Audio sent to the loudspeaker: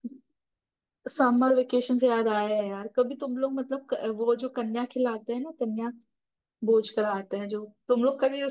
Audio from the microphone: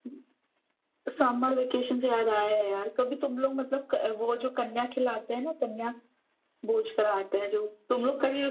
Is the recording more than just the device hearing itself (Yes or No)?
No